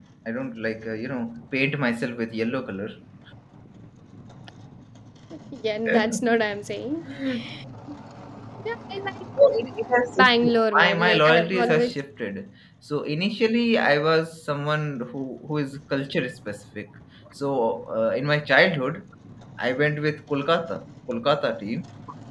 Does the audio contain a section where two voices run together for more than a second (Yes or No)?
Yes